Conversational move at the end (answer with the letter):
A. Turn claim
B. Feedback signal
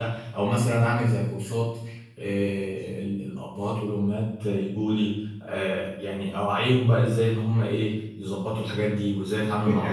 A